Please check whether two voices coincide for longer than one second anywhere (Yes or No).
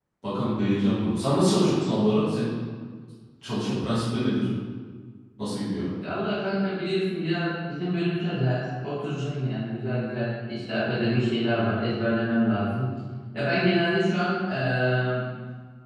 No